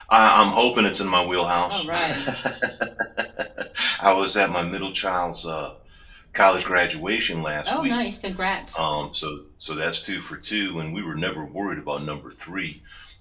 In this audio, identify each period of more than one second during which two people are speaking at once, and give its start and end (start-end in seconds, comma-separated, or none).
none